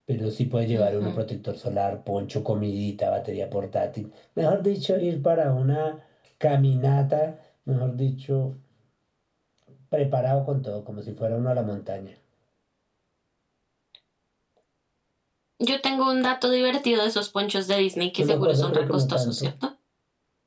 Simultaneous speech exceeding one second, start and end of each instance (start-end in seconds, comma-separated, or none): 18.2-19.5